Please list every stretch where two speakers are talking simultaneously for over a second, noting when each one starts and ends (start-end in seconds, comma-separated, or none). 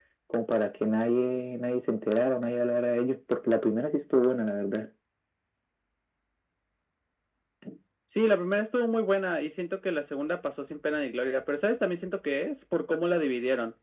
none